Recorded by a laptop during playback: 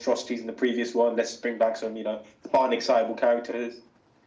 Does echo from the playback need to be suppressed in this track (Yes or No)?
Yes